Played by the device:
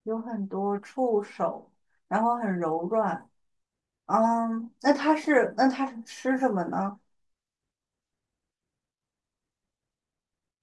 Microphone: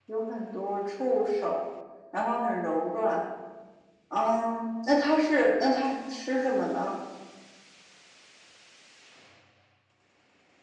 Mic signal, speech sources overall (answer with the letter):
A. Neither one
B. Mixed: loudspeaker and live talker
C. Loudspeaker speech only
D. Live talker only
C